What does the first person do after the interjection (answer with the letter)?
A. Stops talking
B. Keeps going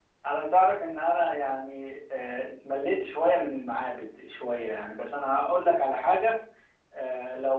B